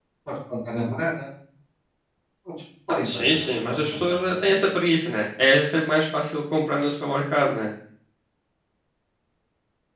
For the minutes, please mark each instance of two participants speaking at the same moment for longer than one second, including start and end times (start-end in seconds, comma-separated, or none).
3.0-4.5